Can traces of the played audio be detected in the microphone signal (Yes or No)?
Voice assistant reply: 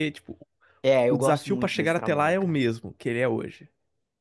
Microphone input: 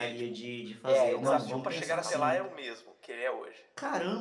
Yes